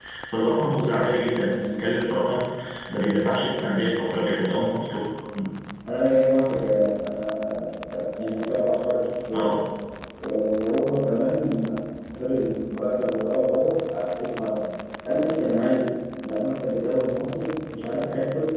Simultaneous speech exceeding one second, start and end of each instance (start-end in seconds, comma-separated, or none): none